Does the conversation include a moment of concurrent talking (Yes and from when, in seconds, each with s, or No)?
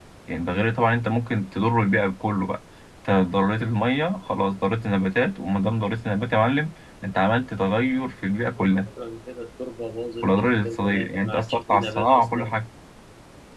Yes, from 10.2 s